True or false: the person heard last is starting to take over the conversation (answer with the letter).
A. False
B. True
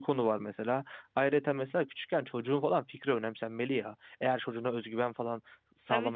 B